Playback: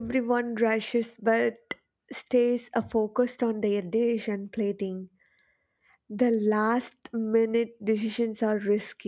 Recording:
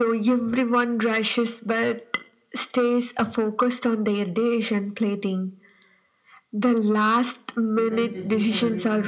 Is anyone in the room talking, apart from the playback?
Yes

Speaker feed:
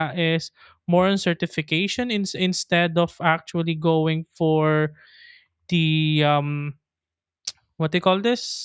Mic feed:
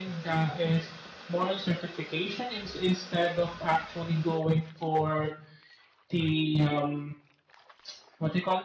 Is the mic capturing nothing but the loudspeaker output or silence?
Yes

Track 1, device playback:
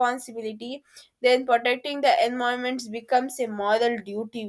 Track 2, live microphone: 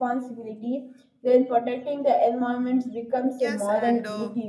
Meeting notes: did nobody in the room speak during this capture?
No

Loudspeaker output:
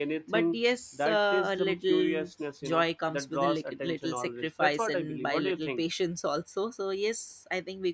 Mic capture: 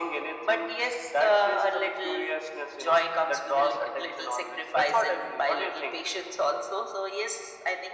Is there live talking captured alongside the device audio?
No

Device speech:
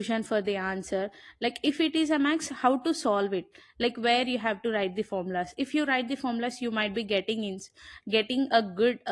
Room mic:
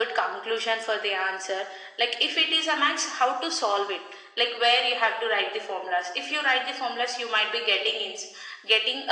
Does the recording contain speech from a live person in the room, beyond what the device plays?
No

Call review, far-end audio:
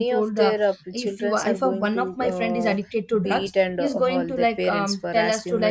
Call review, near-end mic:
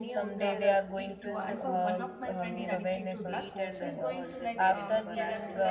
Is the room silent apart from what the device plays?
No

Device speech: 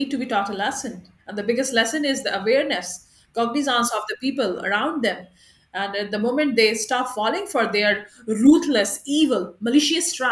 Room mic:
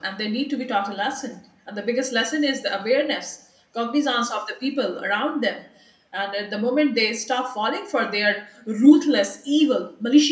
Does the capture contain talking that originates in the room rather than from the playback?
No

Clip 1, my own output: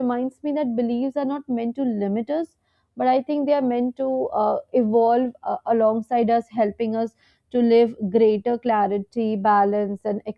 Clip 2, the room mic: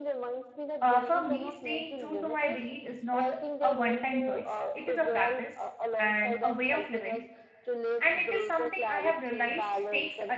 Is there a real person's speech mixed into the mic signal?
Yes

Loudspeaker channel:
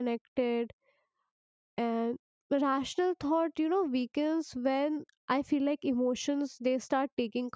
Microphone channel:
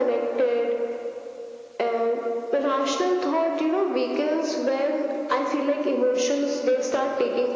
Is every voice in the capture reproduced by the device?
Yes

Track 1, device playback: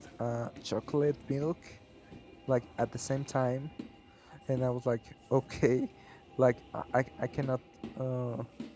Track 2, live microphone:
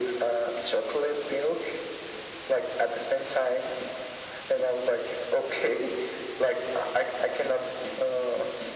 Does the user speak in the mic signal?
No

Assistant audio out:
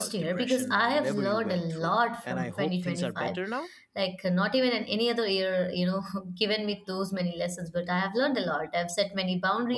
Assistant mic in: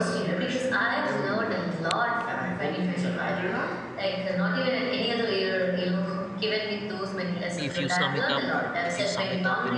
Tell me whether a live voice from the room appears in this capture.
Yes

